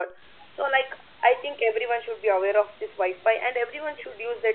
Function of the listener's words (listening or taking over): listening